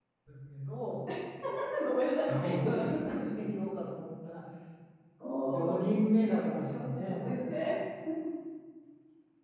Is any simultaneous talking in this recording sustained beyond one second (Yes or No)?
Yes